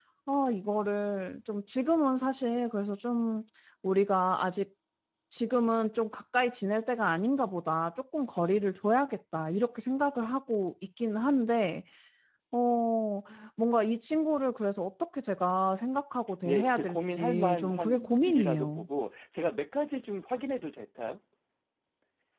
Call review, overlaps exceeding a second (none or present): present